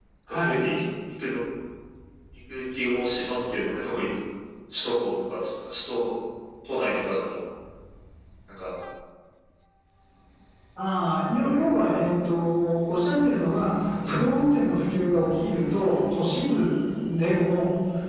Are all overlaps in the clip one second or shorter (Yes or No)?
Yes